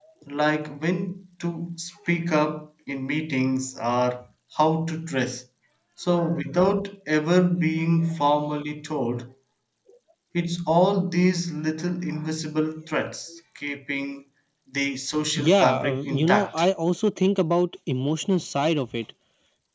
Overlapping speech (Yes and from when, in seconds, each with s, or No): Yes, from 15.4 s